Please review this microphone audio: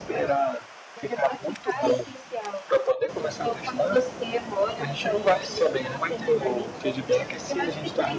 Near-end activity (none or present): none